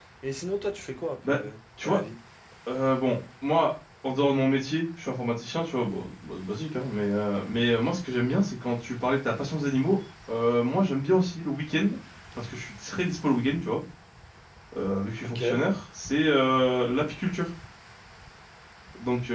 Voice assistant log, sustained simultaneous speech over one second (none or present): none